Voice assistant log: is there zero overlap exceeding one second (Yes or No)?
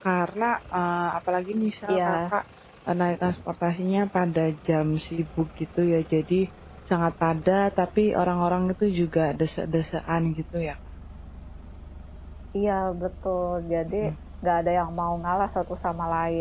Yes